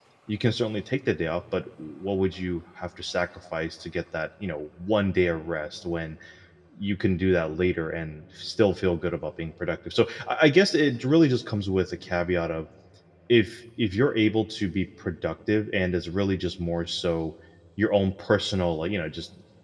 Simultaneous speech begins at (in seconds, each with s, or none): none